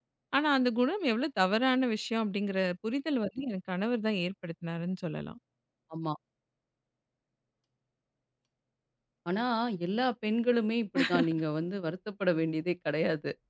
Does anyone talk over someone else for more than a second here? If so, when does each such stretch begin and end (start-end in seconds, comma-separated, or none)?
none